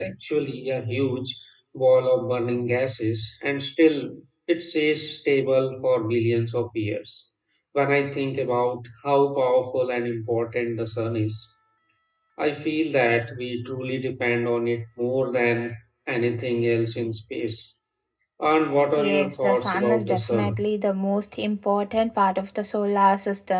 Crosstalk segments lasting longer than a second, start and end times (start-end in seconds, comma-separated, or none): 19.0-20.6